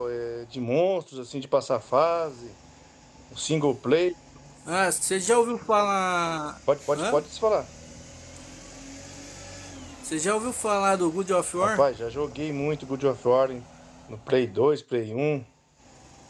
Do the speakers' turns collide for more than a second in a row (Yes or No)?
No